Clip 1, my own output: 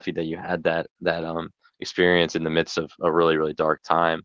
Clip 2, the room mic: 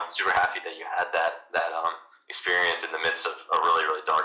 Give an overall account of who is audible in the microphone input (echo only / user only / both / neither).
echo only